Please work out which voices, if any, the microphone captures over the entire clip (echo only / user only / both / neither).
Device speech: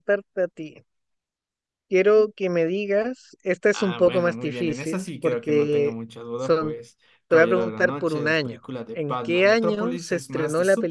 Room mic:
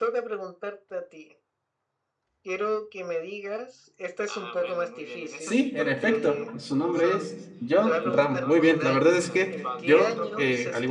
both